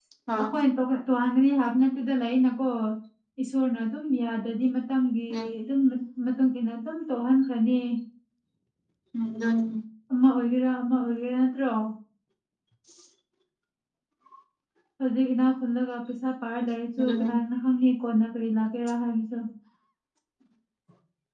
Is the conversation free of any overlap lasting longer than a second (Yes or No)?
Yes